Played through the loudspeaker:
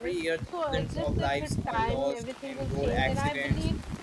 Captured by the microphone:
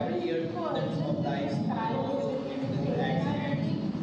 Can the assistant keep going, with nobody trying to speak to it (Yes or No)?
No